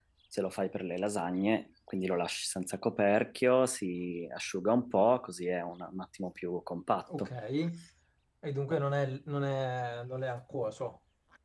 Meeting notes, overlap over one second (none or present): none